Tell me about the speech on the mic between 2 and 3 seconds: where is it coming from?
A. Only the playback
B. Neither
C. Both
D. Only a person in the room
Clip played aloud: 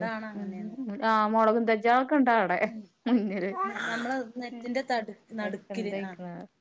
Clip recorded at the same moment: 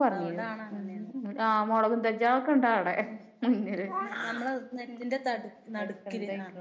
A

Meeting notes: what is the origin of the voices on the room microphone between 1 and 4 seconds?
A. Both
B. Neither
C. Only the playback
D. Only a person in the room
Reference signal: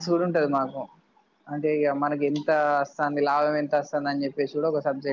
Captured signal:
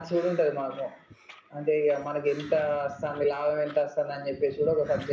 C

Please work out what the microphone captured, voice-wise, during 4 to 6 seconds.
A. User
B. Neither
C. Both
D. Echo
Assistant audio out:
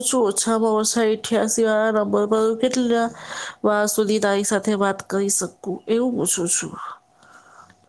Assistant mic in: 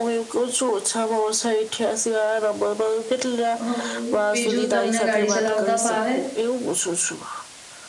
C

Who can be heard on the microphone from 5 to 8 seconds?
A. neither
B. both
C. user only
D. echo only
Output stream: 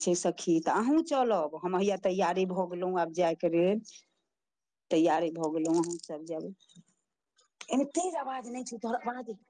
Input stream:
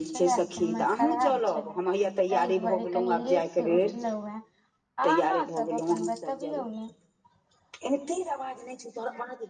B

